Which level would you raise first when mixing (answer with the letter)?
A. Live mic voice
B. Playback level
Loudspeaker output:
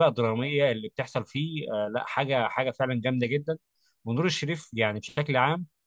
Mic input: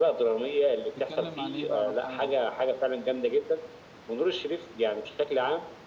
A